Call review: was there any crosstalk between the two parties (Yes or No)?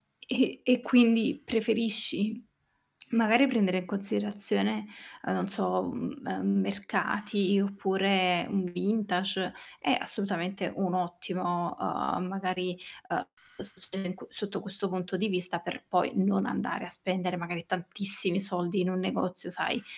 No